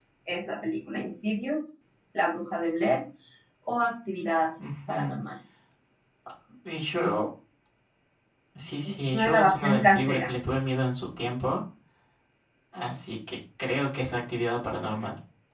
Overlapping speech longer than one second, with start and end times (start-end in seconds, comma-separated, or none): 8.8-10.3